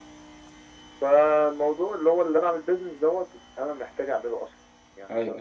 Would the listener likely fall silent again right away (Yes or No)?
No